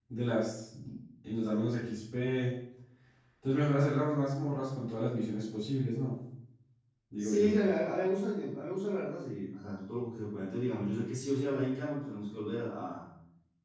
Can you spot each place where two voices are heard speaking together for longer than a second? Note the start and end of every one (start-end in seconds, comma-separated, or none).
none